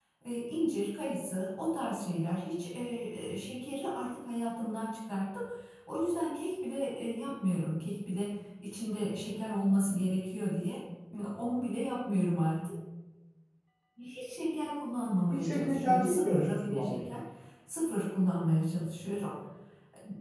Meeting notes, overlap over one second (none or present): present